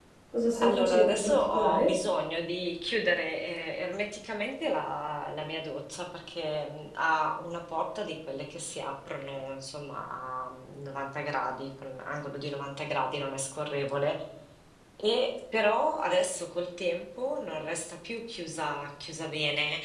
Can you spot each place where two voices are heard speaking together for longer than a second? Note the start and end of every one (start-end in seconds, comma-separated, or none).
0.6-1.9